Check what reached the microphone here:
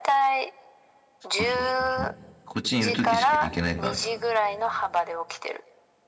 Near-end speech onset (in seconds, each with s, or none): 1.2 s